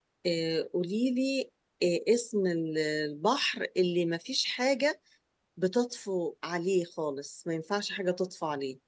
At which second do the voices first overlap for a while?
none

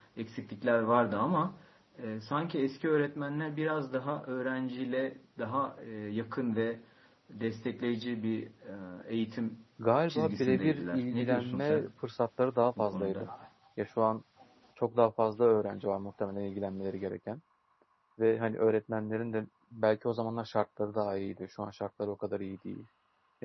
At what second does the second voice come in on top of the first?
10.1 s

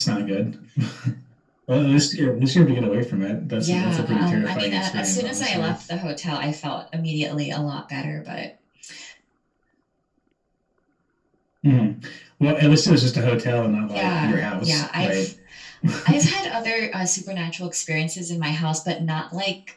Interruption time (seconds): 3.6 s

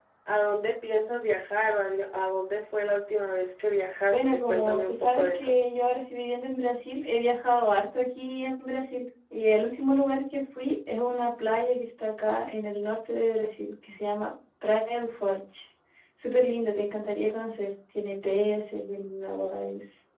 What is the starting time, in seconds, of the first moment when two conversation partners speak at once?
4.1 s

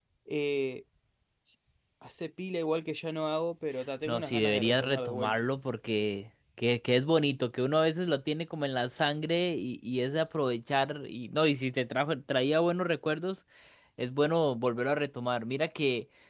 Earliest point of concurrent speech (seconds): 4.1 s

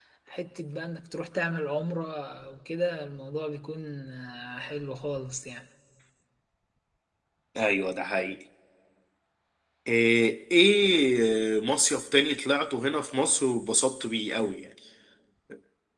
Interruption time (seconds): none

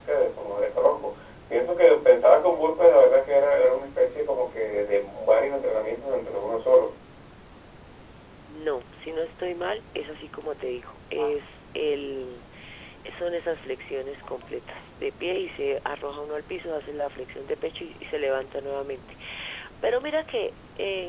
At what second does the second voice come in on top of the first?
none

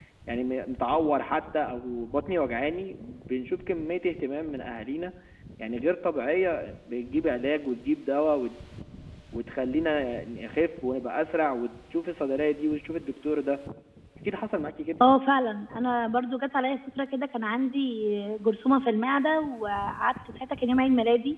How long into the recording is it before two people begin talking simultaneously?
none

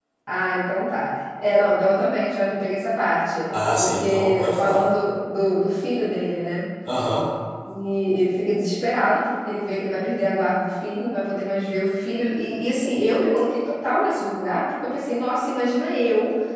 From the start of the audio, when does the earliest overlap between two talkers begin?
3.5 s

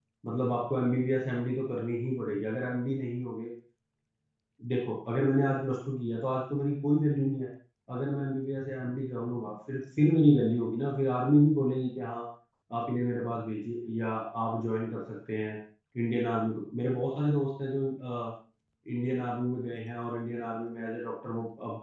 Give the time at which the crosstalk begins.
none

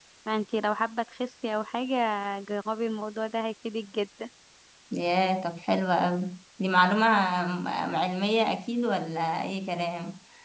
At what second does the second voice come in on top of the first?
none

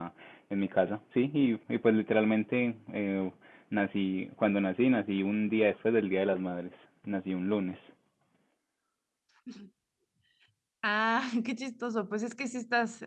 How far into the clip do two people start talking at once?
none

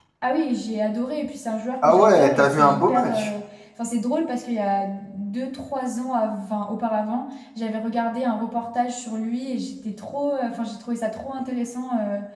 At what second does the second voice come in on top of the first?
1.8 s

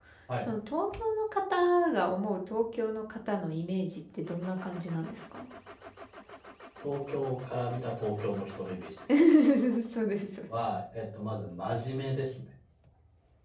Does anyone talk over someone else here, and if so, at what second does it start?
none

